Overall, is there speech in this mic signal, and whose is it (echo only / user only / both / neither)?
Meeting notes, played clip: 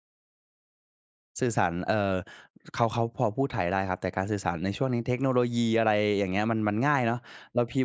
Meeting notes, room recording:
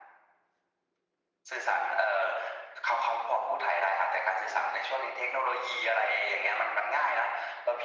echo only